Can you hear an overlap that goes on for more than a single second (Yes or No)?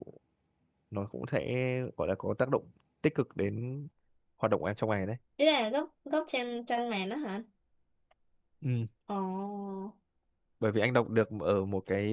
No